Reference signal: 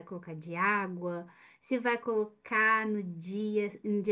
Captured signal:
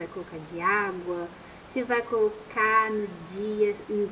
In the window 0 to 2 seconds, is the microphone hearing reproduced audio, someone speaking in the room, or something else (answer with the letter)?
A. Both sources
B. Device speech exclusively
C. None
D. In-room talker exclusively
B